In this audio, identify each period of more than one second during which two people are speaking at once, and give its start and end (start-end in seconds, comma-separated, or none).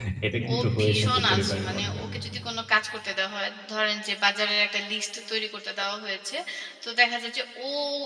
0.5-2.0